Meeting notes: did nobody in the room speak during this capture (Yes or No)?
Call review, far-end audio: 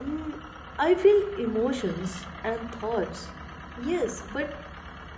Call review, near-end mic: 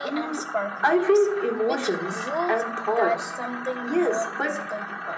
No